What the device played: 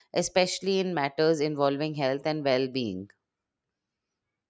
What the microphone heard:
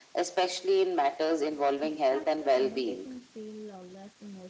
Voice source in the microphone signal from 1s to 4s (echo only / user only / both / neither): both